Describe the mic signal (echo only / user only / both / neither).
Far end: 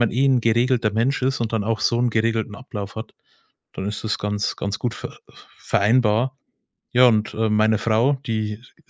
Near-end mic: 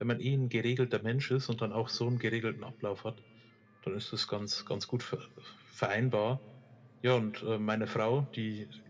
echo only